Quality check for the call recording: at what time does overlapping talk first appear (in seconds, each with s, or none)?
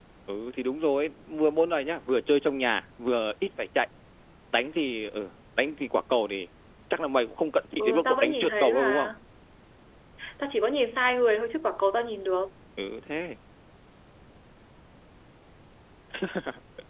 7.8 s